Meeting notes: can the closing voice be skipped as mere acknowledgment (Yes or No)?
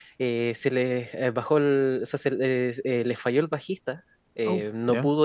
Yes